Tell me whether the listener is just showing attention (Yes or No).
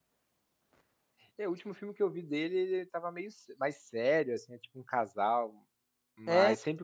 Yes